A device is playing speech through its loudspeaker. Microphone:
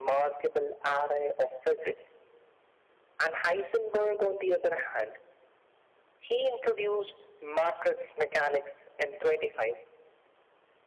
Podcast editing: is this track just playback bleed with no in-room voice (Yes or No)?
Yes